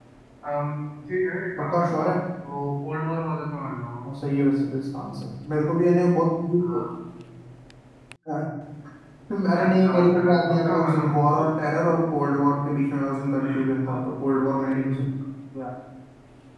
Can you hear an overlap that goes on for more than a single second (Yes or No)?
Yes